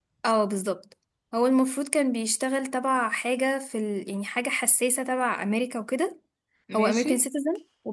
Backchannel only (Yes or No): Yes